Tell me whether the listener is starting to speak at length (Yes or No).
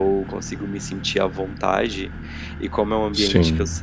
No